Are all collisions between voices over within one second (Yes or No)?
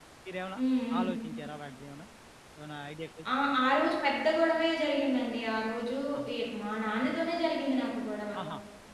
Yes